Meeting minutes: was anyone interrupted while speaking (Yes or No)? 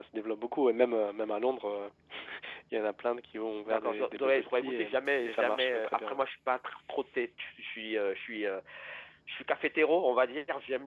Yes